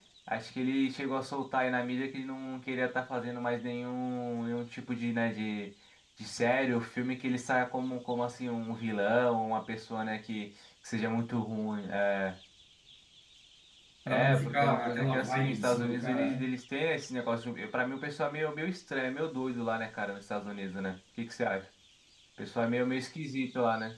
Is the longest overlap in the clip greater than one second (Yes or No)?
Yes